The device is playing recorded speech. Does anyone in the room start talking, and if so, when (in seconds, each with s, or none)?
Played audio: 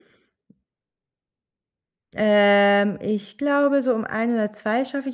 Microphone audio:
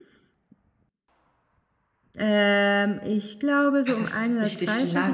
3.9 s